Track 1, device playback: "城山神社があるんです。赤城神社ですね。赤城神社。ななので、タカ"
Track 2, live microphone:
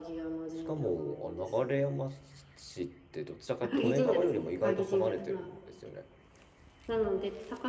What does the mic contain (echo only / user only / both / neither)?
both